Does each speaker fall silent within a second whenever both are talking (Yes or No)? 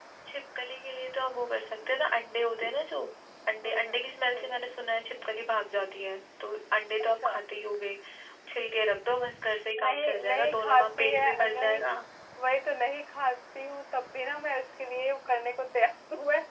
No